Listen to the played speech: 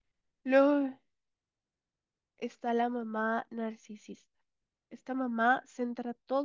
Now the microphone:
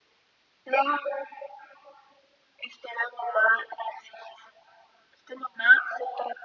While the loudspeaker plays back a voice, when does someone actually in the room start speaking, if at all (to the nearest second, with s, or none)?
none